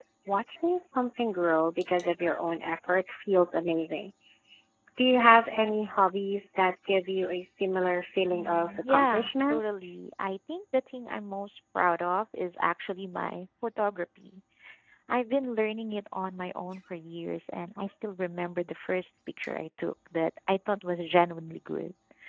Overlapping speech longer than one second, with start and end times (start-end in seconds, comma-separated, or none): 8.3-9.6